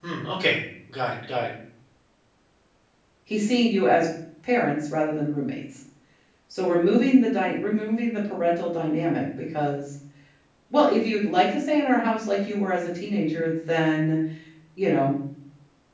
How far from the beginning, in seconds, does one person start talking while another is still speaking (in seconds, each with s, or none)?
none